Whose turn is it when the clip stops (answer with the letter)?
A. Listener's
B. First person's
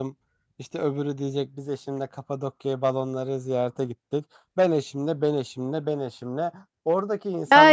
A